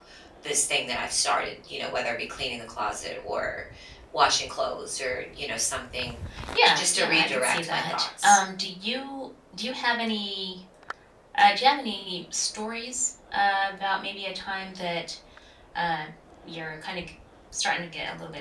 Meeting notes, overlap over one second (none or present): present